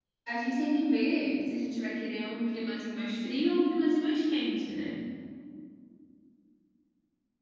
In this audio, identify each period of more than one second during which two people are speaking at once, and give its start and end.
none

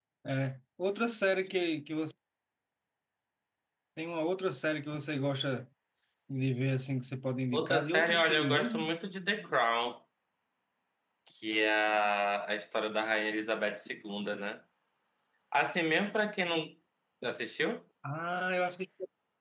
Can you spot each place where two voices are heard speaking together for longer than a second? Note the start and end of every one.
7.5-8.9

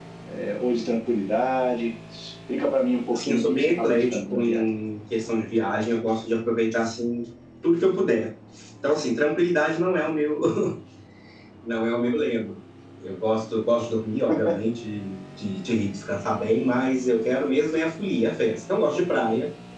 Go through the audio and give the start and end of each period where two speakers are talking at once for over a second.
3.1-4.6

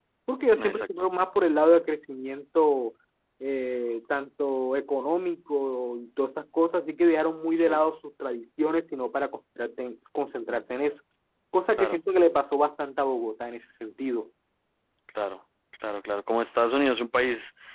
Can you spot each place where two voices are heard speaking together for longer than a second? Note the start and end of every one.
none

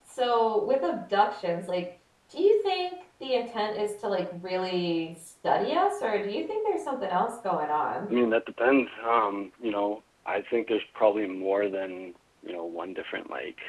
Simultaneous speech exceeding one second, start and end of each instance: none

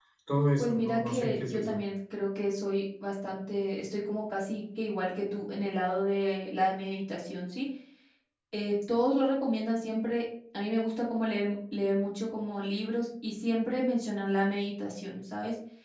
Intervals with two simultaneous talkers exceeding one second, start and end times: 0.6-1.8

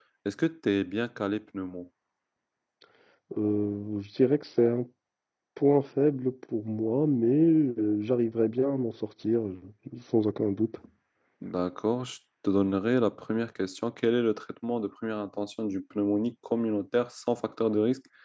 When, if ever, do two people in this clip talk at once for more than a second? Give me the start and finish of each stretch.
none

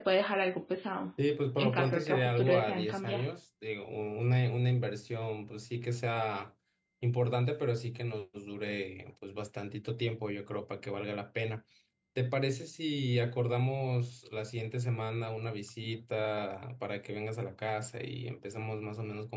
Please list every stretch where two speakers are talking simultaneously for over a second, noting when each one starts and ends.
1.6-3.2

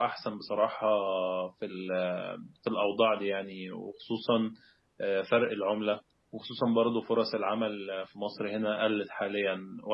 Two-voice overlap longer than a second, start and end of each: none

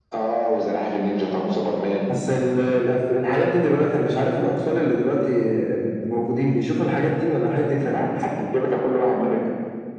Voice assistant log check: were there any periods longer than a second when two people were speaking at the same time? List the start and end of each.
none

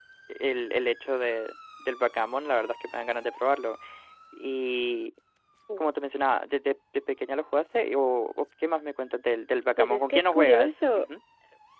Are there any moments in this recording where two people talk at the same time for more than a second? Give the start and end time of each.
9.8-11.1

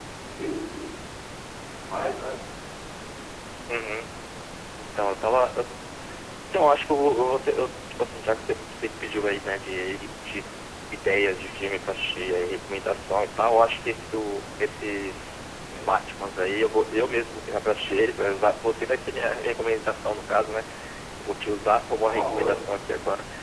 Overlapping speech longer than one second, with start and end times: none

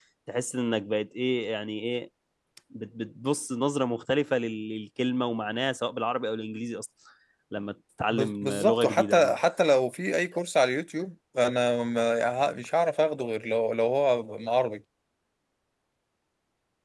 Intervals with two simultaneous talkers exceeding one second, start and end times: 8.1-9.4

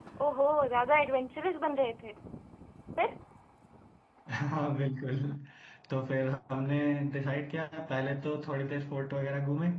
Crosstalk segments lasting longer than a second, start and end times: none

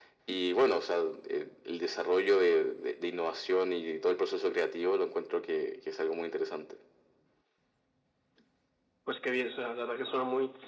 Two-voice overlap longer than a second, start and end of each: none

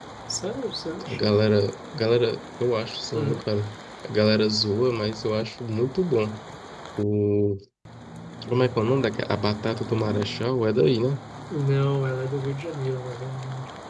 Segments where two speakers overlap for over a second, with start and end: none

